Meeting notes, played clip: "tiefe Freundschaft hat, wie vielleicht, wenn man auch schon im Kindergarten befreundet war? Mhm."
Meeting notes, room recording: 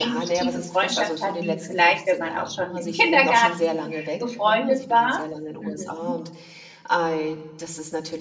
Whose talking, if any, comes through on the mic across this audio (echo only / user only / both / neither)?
both